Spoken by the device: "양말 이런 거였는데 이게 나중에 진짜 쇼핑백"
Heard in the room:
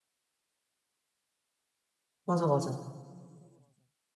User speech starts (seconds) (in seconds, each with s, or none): 2.2 s